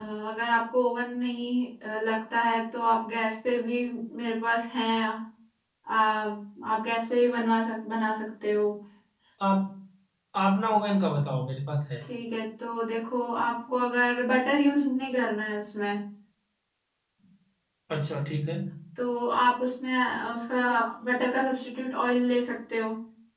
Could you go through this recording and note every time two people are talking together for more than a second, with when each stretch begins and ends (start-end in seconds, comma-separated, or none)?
none